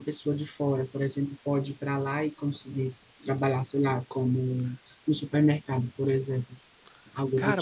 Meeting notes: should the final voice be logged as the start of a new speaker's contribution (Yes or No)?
Yes